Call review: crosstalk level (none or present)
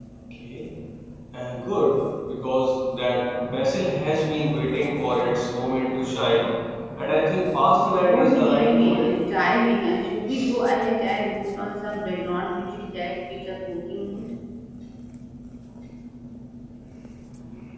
present